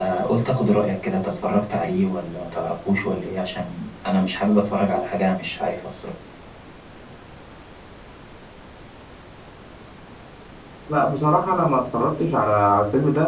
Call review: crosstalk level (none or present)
none